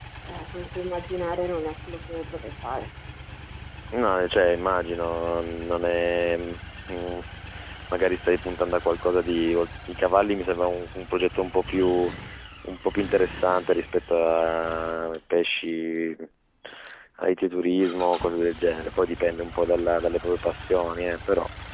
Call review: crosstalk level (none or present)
none